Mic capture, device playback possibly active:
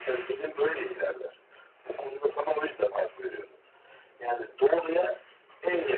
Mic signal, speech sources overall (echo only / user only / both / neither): echo only